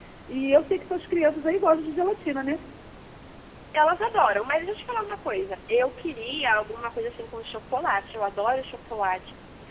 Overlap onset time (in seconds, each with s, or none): none